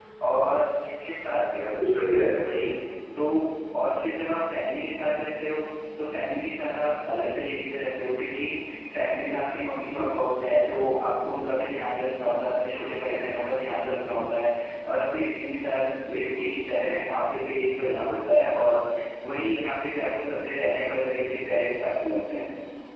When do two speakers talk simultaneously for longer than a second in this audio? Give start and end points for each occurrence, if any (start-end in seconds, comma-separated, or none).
none